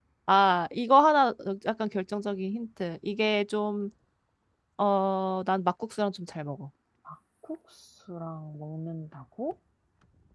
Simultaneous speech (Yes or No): No